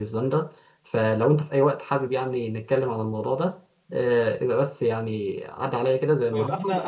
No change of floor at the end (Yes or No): No